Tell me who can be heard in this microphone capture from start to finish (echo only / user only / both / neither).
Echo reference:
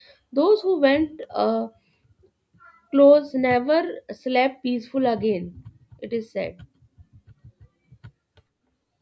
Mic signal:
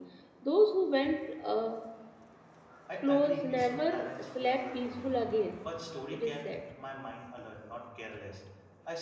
both